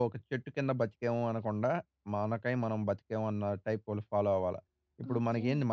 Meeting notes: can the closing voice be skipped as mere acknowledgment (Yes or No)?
Yes